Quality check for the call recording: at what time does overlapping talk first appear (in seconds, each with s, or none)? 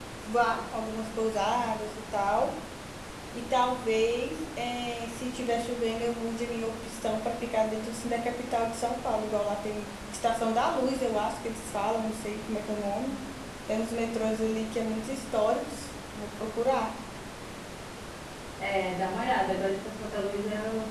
none